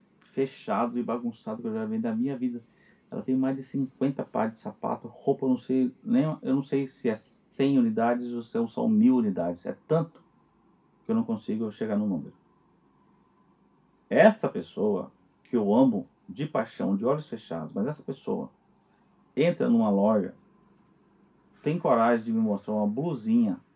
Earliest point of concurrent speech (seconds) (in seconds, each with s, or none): none